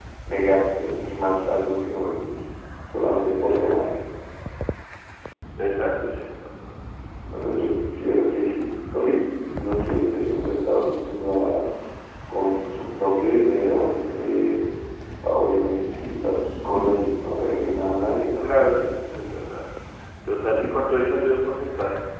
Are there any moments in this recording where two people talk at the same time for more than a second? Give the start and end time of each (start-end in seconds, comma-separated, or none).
none